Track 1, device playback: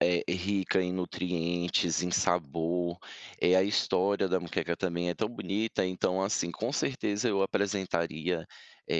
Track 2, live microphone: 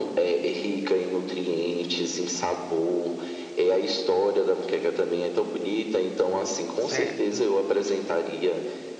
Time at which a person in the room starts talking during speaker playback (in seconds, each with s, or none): 6.8 s